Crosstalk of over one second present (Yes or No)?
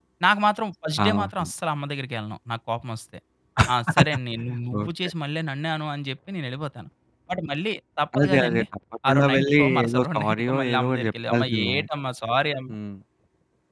Yes